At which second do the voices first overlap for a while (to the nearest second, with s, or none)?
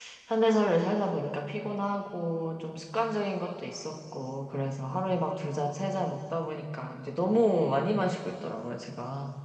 none